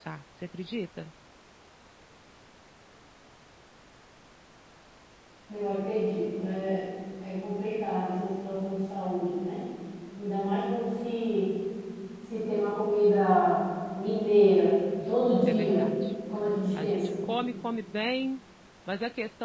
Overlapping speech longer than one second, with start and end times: none

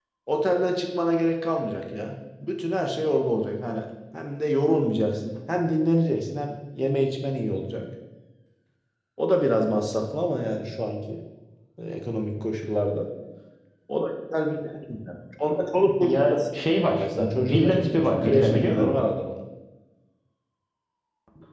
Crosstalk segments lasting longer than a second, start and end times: 16.9-19.0

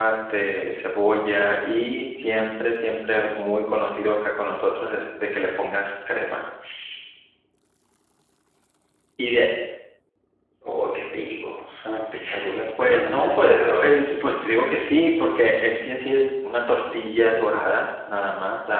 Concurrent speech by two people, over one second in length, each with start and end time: 12.8-14.2

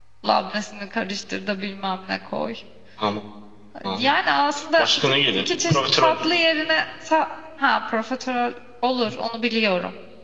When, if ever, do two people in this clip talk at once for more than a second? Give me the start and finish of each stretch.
4.8-6.2

